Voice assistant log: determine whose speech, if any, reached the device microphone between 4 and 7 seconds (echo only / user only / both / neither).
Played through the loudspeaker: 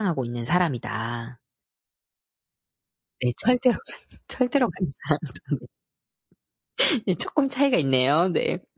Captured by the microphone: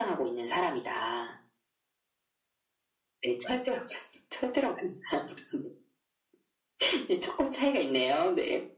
echo only